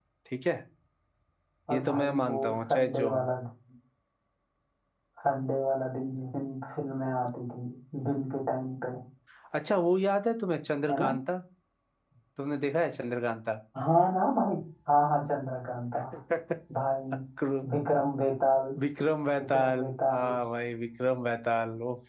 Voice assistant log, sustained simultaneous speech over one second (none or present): present